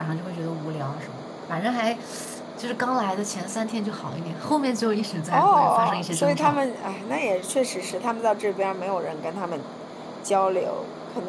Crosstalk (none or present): present